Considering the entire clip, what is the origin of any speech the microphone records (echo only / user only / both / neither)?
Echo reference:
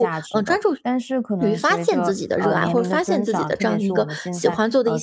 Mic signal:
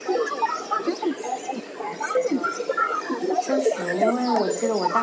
both